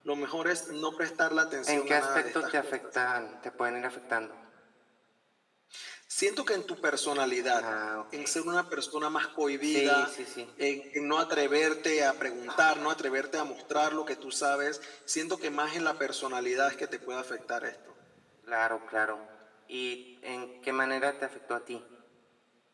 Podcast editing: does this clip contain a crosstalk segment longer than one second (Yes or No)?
Yes